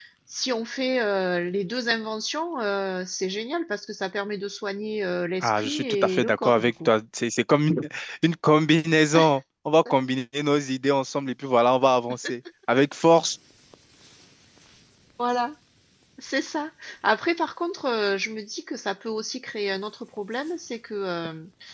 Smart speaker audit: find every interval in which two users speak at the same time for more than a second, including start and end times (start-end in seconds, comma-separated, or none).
5.4-6.9